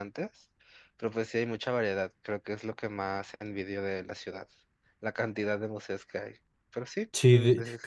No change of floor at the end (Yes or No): No